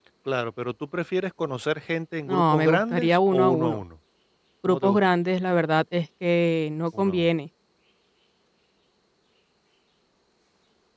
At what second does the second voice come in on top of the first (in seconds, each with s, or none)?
2.3 s